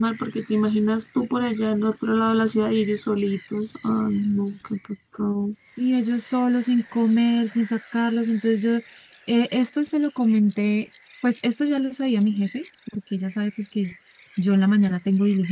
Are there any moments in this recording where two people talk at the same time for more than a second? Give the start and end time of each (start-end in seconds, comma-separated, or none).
none